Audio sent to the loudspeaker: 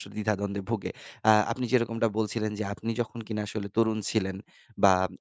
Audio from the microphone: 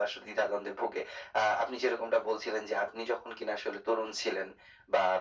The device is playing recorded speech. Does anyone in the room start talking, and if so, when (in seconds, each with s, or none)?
none